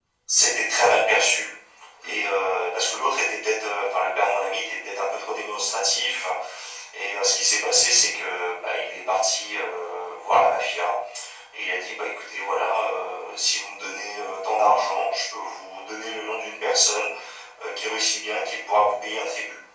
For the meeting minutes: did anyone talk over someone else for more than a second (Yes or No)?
No